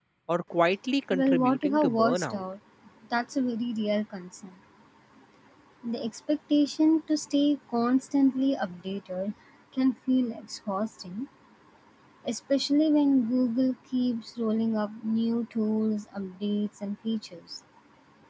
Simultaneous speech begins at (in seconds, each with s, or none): 1.1 s